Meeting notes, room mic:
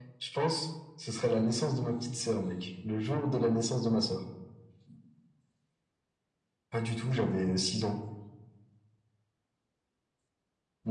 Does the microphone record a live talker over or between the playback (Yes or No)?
No